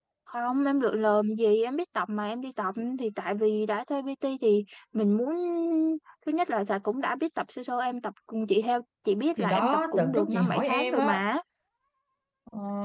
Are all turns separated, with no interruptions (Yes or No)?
No